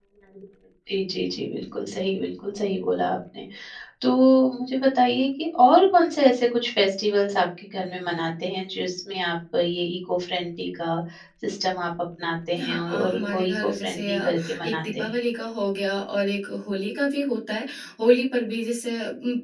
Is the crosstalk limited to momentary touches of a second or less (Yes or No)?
No